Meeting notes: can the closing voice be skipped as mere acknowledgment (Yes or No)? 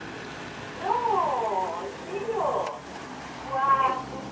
Yes